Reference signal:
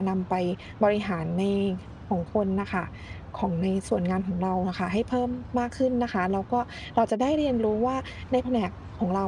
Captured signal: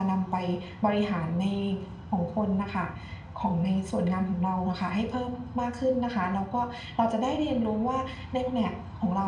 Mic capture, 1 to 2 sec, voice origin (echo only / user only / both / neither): echo only